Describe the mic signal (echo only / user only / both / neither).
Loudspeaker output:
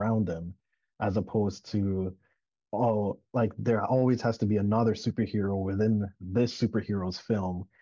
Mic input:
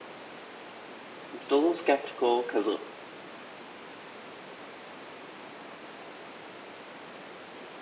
user only